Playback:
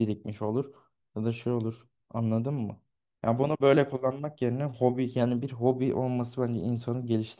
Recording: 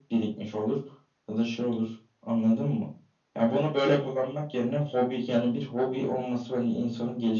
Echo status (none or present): present